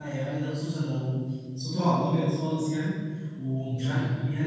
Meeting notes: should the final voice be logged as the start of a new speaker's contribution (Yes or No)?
No